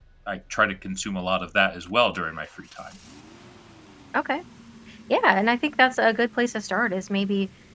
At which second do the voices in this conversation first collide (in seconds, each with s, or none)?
none